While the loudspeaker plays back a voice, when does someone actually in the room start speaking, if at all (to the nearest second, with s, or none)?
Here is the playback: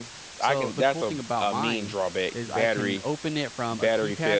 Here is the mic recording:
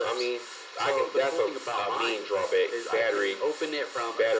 none